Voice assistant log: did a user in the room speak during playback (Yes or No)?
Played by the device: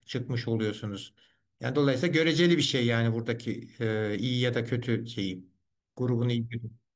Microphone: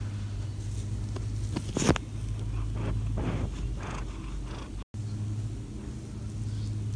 No